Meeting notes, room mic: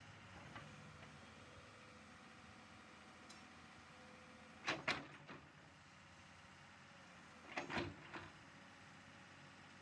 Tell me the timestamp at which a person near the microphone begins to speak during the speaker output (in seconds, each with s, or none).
none